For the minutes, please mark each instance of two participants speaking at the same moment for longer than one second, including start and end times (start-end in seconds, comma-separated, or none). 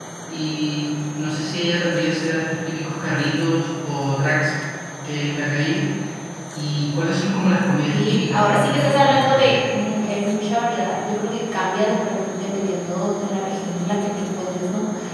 7.9-9.6